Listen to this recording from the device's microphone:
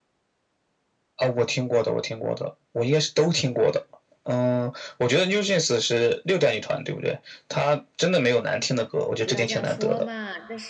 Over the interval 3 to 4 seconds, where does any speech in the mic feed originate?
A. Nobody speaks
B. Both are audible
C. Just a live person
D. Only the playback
D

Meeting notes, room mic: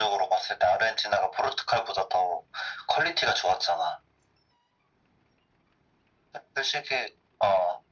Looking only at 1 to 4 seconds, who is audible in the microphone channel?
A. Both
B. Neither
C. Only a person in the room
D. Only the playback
D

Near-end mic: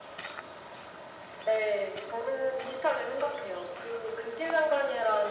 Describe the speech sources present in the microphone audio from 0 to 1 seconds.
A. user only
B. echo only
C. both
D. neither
D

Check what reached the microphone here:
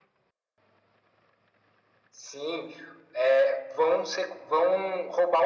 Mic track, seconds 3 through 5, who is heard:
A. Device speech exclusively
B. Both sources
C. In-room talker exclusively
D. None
A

